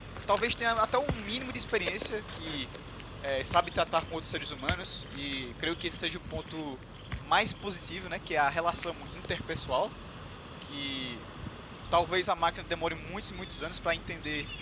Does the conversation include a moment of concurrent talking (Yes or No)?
No